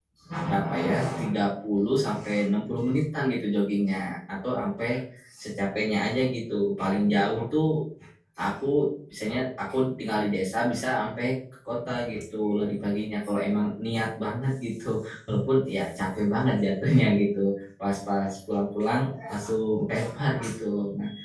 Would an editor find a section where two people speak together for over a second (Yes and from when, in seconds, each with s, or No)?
No